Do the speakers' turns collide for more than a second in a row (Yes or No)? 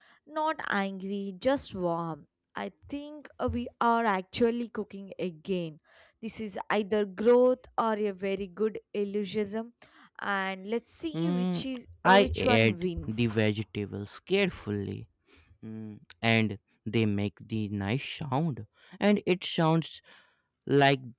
Yes